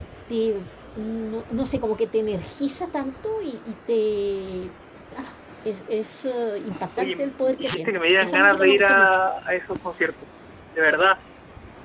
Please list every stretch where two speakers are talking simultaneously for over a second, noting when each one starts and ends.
7.0-9.2

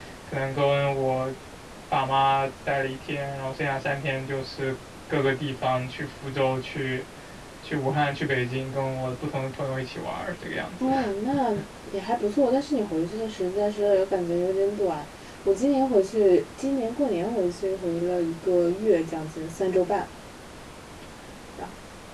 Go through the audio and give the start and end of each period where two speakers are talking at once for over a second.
none

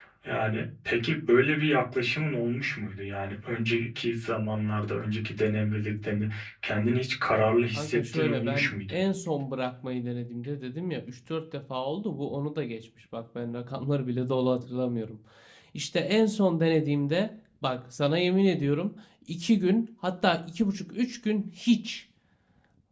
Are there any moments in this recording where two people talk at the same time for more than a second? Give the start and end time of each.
7.7-9.0

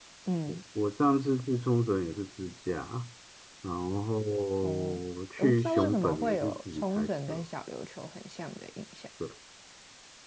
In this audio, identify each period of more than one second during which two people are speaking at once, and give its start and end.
5.4-7.4

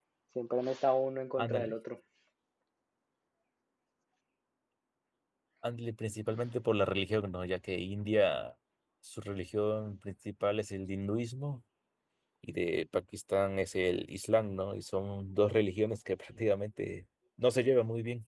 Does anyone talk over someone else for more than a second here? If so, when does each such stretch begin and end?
none

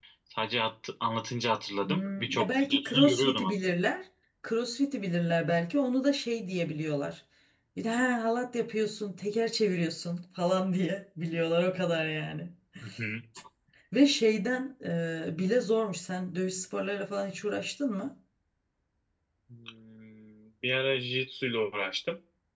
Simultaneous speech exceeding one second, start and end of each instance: 1.9-3.5

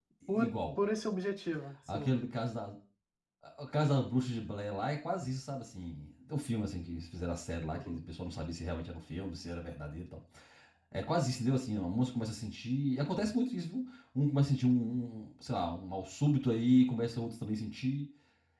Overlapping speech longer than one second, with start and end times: none

